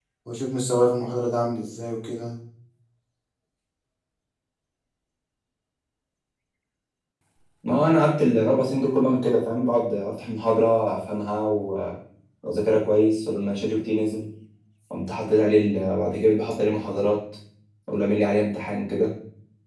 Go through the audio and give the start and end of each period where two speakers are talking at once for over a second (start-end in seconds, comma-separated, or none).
none